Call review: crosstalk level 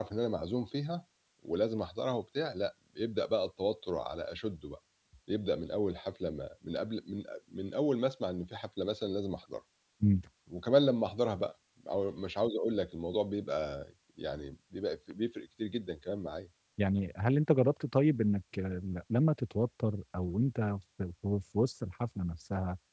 none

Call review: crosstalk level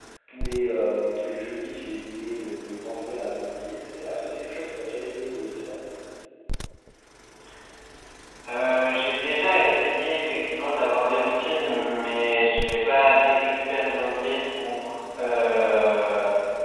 none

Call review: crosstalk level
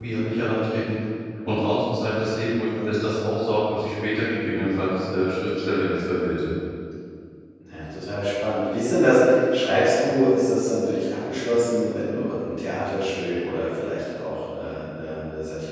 none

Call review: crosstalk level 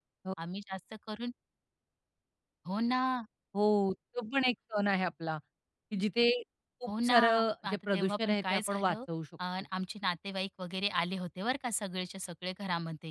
present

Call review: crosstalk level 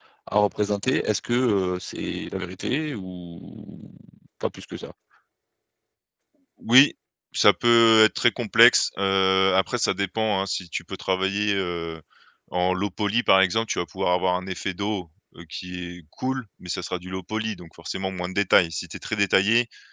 none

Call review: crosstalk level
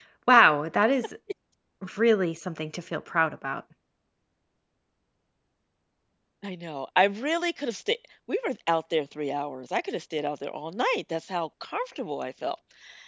none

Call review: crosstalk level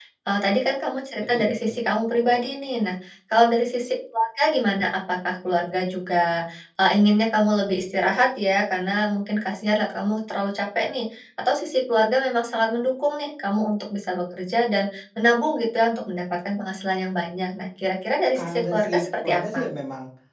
present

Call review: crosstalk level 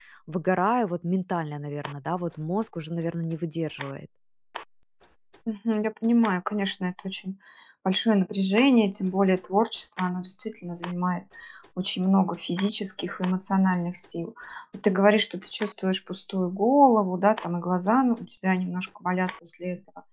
none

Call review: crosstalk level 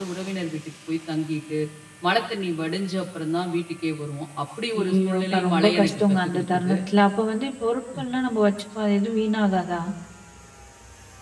present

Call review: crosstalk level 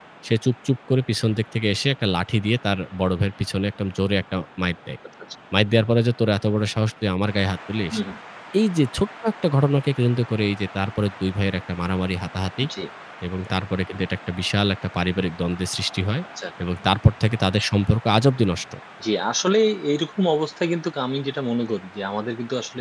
none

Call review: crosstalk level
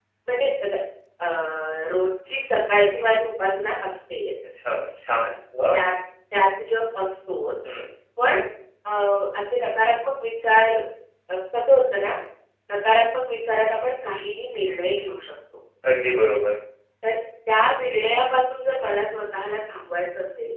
none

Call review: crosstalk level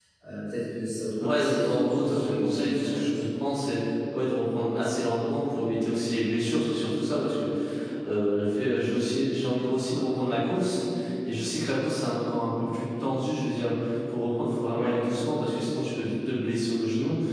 present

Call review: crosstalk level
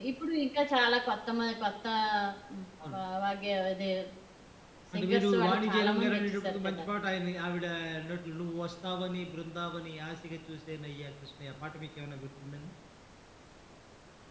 present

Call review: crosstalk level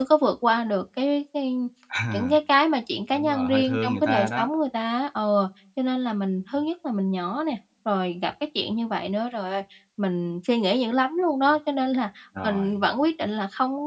present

